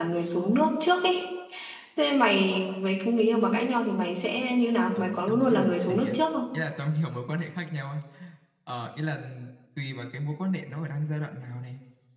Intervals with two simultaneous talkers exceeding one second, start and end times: 5.0-6.2

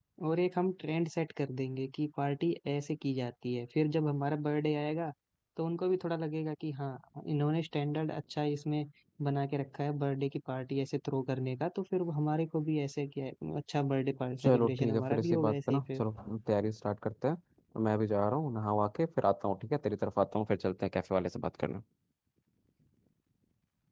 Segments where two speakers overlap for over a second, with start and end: 14.4-16.0

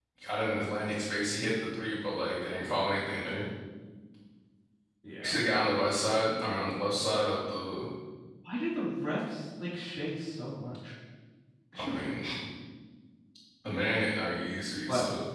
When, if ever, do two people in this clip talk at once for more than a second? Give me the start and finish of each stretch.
none

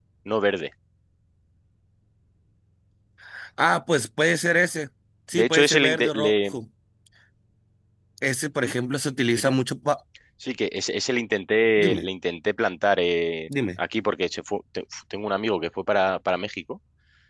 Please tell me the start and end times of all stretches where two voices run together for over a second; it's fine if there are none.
5.3-6.6

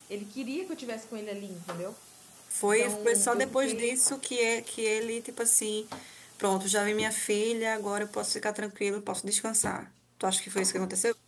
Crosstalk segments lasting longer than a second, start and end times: 2.7-4.0

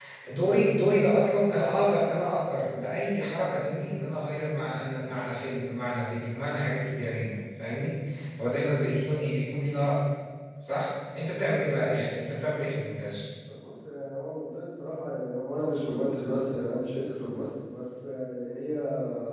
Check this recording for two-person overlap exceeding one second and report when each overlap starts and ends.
none

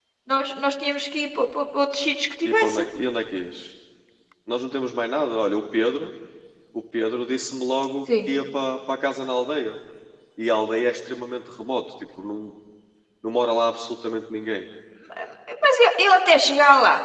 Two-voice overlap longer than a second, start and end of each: none

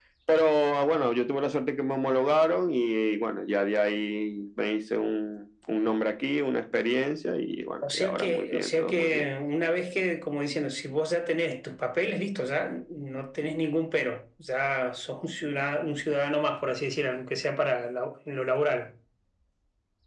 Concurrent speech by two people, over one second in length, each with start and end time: 7.9-9.2

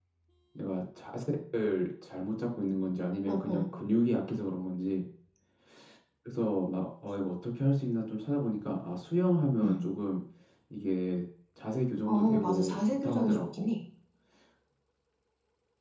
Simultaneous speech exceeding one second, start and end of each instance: 12.1-13.7

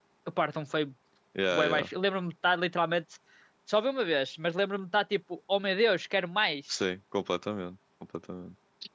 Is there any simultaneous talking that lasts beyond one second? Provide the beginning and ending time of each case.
none

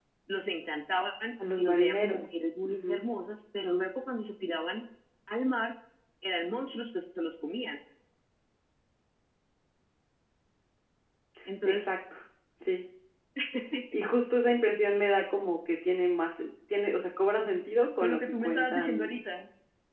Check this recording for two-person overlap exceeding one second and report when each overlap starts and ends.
1.6-3.0, 18.0-19.2

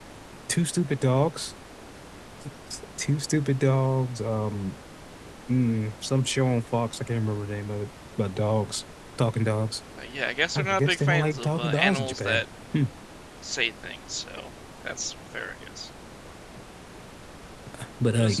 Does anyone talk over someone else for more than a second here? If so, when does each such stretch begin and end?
10.6-12.4

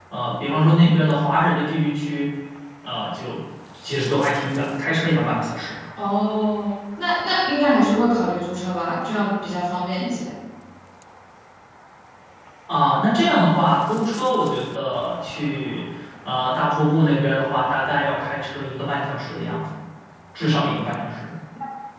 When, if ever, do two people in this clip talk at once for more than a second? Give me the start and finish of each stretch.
none

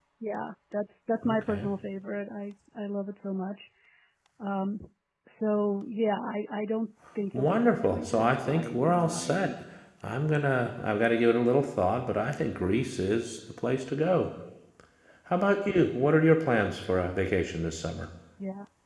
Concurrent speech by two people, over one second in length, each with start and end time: 7.3-9.5

